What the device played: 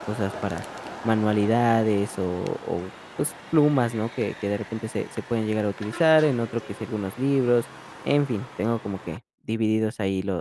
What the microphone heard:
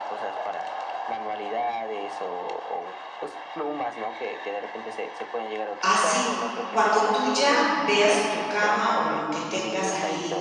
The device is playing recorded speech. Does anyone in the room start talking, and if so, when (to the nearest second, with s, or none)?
6 s